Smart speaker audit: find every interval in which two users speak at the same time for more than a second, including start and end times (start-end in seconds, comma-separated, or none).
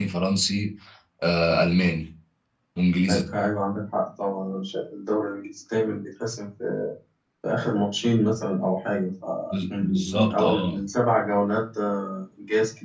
9.5-10.8